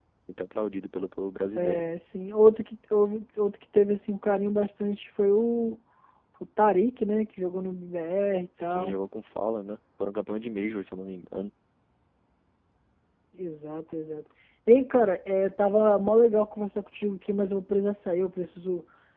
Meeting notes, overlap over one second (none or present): none